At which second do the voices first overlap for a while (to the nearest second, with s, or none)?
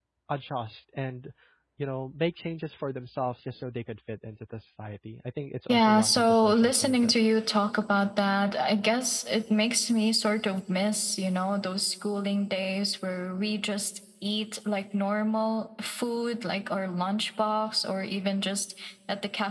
6 s